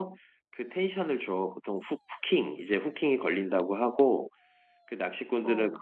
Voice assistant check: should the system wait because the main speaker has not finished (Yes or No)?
Yes